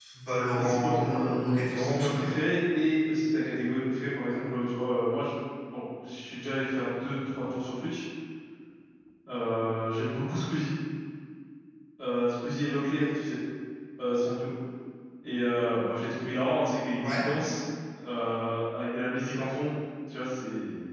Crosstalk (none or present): present